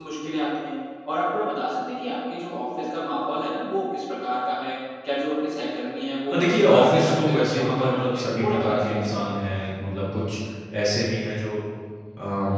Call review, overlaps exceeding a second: present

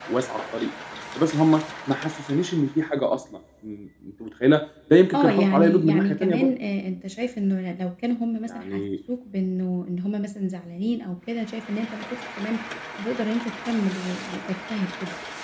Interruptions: present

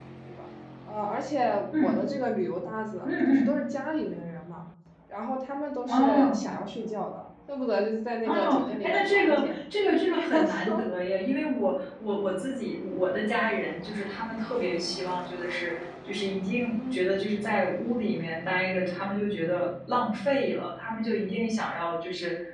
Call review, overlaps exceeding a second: present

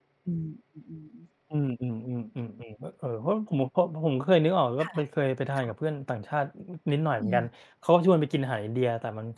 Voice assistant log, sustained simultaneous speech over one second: none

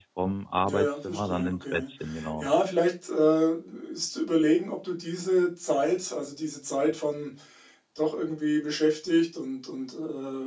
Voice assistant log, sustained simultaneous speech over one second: present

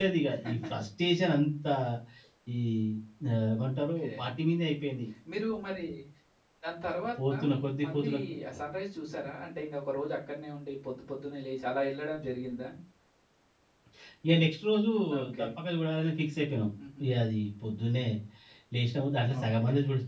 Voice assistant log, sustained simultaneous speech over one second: none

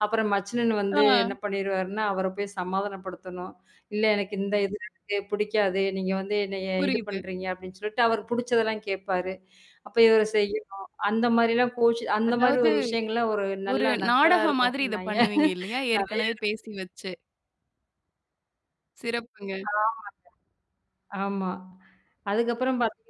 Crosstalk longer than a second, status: present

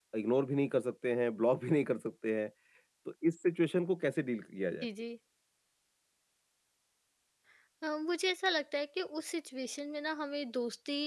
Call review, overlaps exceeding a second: none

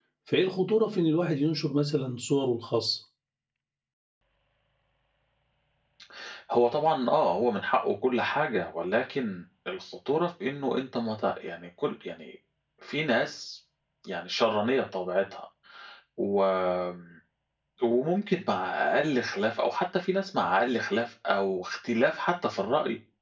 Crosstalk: none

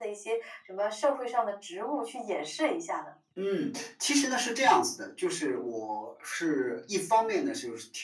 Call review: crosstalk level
none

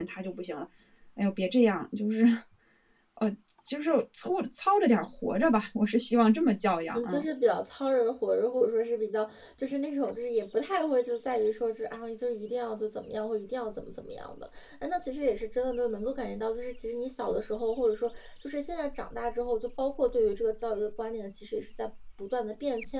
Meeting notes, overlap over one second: none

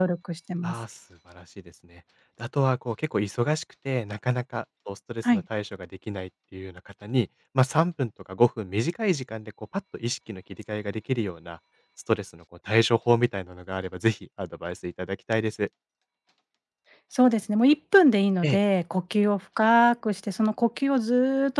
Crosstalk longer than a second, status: none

